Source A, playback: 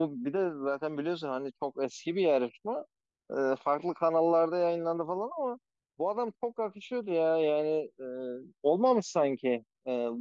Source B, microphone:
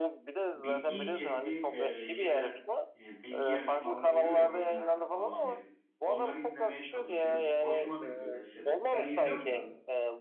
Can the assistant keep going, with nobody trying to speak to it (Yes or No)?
No